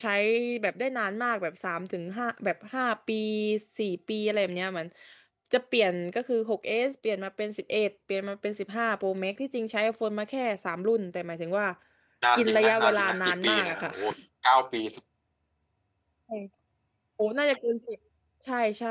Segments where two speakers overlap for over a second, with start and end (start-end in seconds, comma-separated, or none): 12.3-13.9